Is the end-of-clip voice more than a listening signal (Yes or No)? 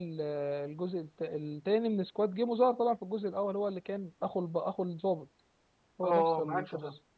Yes